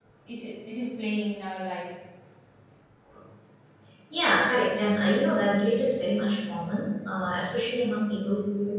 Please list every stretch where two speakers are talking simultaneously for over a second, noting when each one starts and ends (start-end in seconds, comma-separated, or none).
none